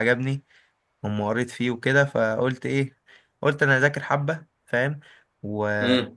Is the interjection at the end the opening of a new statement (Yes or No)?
No